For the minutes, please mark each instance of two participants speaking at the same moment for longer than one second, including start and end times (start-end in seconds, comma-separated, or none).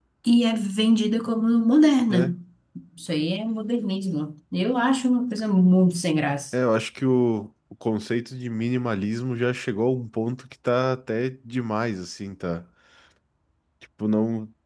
none